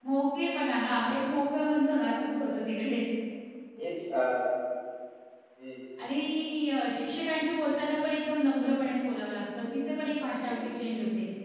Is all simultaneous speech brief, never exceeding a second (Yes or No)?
Yes